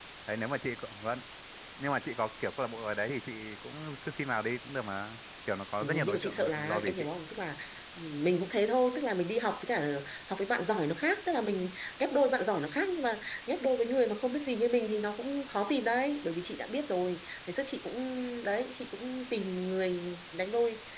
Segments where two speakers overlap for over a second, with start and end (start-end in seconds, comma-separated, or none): 5.8-7.0